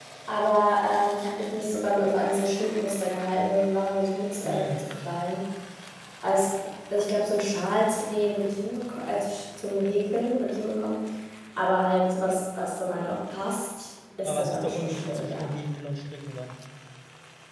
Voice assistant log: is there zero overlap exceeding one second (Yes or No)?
No